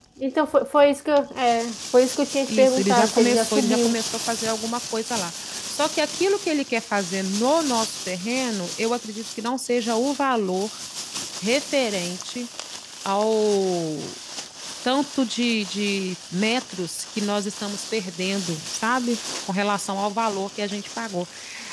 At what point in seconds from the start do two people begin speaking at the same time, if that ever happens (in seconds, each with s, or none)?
2.5 s